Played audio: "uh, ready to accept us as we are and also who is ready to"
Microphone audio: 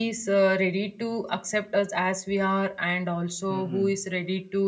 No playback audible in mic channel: No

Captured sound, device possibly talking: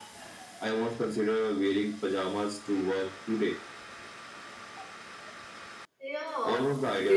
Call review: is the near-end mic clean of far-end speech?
No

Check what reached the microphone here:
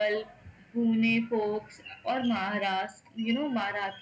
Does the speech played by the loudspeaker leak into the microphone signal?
Yes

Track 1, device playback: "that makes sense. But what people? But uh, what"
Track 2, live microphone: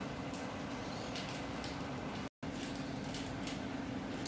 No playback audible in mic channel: Yes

